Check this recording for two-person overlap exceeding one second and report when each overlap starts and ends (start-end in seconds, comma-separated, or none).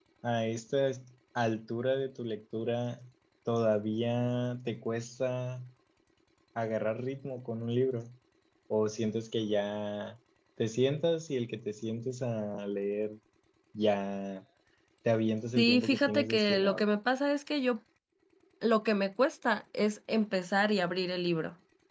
15.6-16.8